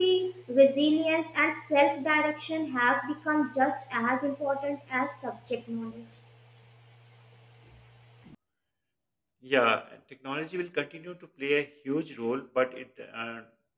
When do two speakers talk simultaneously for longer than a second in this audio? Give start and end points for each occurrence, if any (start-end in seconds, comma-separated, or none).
none